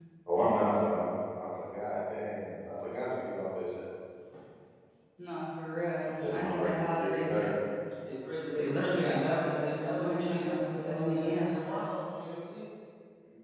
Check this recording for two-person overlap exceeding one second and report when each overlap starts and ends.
6.2-7.6, 8.6-11.6

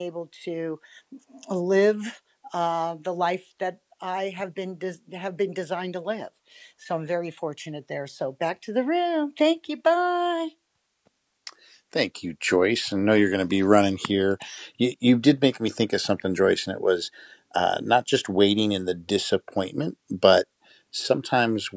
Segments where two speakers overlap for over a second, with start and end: none

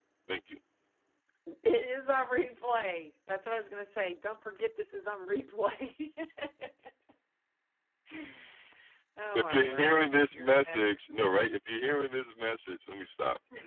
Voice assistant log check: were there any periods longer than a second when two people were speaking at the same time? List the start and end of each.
9.3-10.8

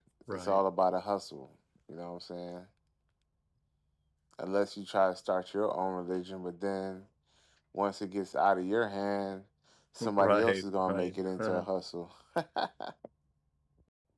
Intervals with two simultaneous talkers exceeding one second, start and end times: 10.2-11.6

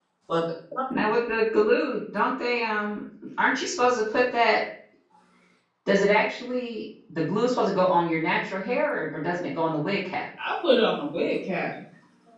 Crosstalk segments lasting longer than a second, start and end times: none

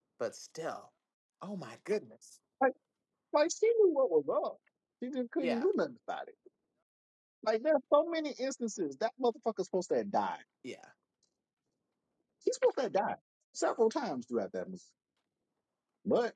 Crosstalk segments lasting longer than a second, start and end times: none

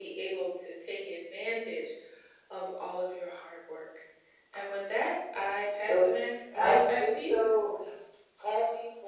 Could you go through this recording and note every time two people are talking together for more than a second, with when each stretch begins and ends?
6.5-7.8

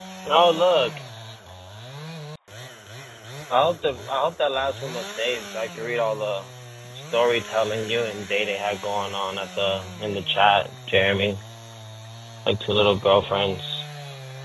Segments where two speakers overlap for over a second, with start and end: none

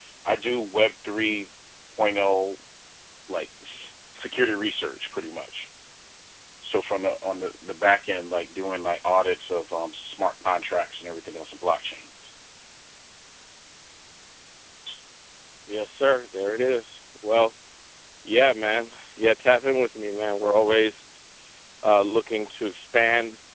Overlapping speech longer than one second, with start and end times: none

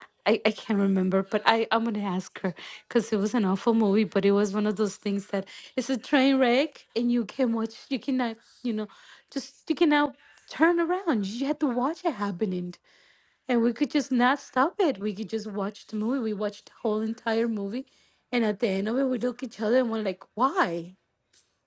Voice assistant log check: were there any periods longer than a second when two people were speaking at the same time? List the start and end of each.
none

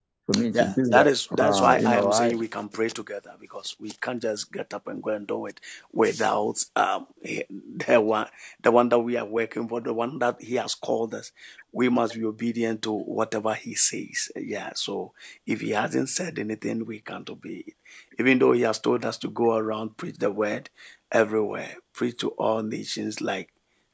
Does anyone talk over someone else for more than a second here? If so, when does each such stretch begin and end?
0.5-2.3

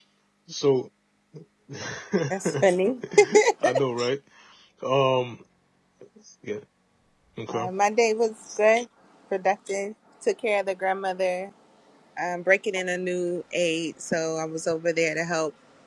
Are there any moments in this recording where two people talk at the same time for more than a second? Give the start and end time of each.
none

